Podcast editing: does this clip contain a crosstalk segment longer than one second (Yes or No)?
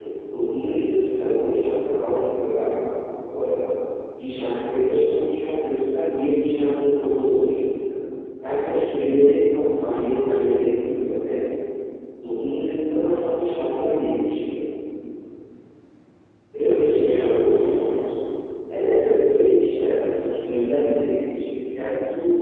Yes